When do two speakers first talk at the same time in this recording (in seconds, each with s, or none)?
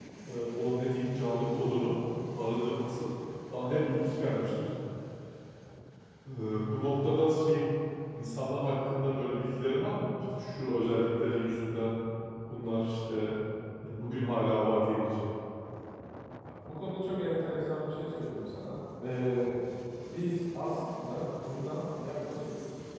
none